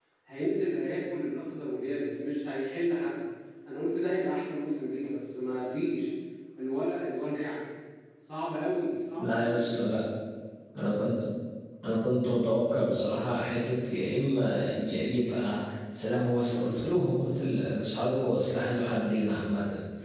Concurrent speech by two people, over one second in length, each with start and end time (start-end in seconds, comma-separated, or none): none